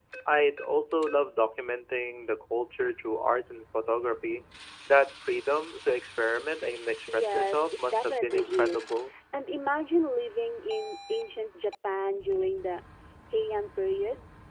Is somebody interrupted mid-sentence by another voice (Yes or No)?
Yes